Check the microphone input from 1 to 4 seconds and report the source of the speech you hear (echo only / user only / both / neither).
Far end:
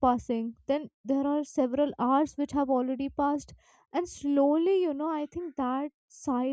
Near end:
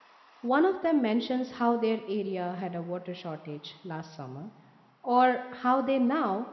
user only